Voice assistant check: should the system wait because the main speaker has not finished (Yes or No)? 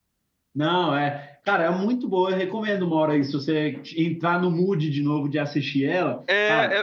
No